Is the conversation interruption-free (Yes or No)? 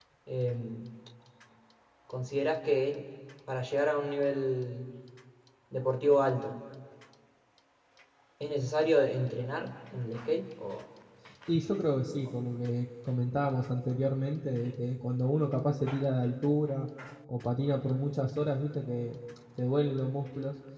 Yes